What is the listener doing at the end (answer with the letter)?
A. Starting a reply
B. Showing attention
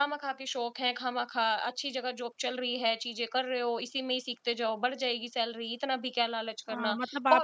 A